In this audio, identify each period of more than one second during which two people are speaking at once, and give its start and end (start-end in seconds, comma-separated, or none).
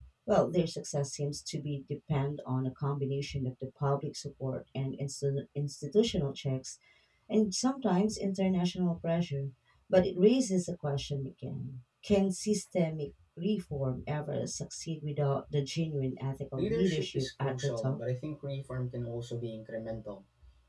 16.6-18.0